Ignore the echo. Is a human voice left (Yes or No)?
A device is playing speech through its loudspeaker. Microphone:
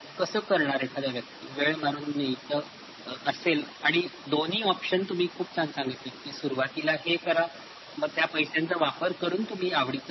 No